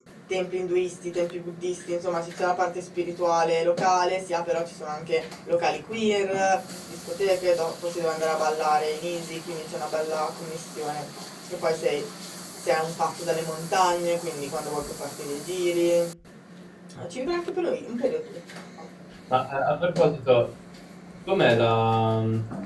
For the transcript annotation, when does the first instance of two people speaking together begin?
none

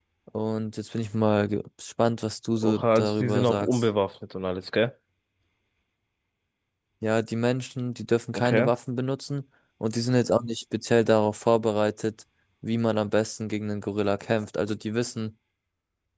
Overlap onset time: 2.6 s

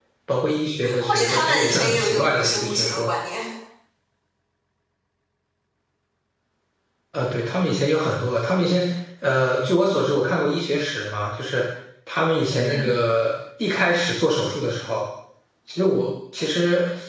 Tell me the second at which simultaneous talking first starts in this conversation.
1.0 s

